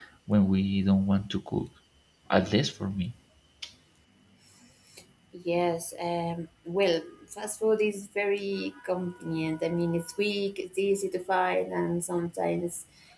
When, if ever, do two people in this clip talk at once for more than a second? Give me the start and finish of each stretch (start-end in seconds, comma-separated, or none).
none